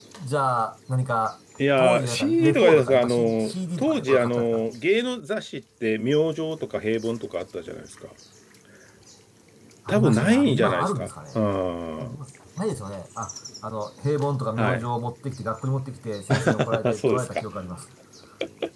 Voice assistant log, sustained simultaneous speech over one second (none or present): present